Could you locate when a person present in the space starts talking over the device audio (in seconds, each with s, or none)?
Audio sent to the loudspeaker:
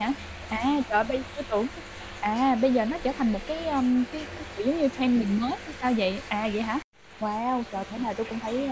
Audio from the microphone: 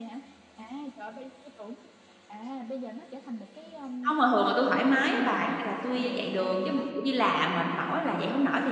4.0 s